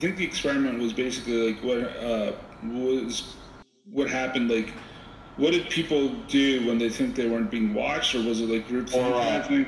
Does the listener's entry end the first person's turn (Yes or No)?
Yes